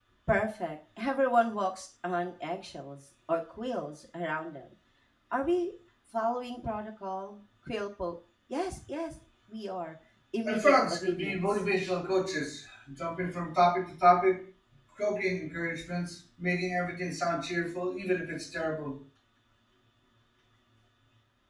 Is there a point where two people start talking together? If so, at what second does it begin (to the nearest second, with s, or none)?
10 s